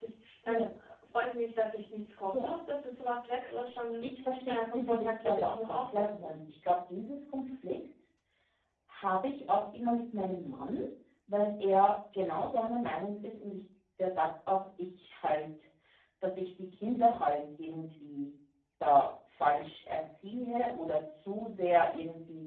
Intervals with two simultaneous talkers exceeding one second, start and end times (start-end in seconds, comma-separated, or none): 4.5-6.4